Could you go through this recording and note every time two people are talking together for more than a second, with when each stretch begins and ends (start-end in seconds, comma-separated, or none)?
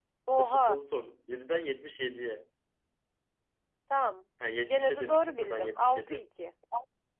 4.7-6.2